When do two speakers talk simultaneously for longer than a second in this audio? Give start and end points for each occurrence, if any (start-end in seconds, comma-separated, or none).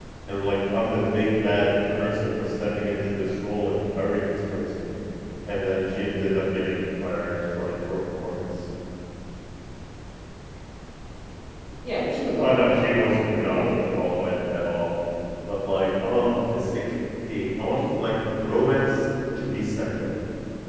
12.4-13.6